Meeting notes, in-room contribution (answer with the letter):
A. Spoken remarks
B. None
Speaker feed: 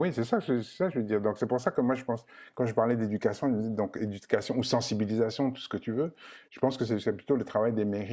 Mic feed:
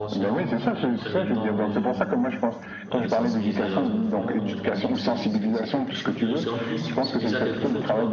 A